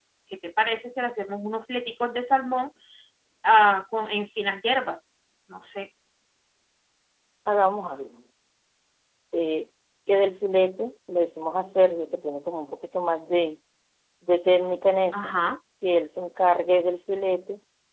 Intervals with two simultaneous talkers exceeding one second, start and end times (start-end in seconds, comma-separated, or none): none